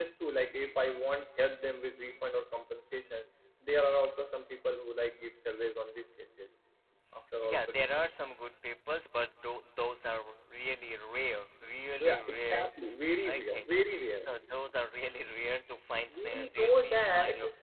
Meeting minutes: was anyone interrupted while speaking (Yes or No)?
Yes